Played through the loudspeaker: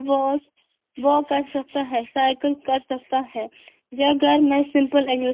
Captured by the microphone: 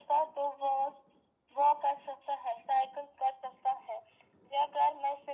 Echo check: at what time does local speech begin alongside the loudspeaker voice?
none

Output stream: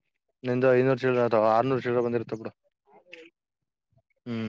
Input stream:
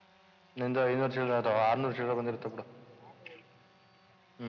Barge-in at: none

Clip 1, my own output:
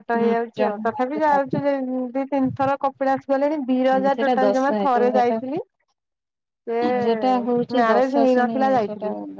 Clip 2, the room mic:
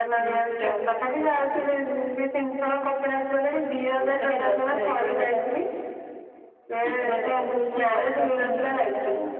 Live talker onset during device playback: none

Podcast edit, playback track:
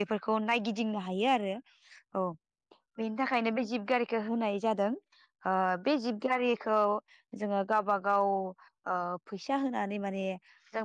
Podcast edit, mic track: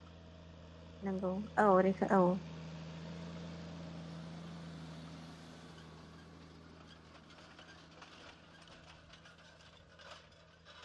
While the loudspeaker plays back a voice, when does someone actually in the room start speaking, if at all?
1.0 s

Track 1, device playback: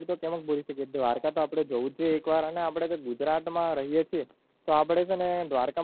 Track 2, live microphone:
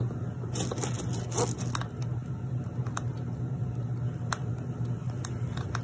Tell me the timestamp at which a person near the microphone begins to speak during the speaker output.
none

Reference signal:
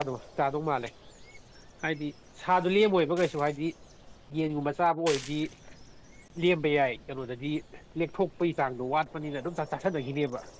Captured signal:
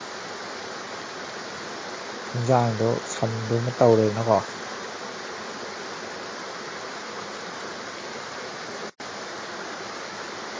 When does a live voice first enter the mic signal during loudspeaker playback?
2.3 s

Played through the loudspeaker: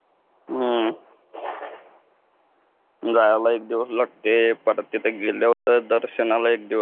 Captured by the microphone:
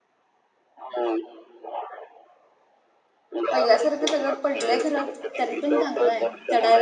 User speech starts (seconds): 3.5 s

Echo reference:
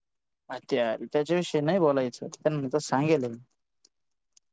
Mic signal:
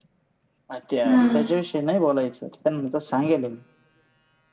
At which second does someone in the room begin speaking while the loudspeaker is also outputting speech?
1.1 s

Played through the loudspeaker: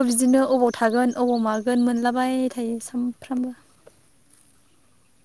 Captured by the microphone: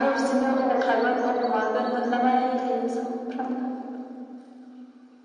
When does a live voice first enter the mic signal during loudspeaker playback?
none

